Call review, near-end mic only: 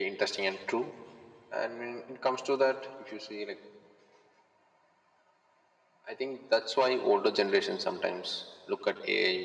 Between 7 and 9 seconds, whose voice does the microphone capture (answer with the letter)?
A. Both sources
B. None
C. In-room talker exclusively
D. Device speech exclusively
D